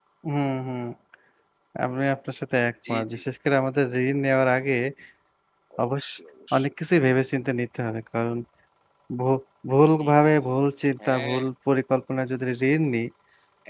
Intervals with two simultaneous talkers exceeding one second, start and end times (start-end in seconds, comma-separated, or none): none